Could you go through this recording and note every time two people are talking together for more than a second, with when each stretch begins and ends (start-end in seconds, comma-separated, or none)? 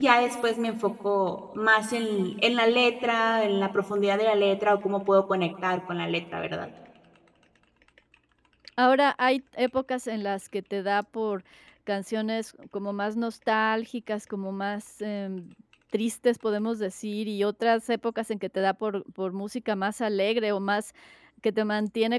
none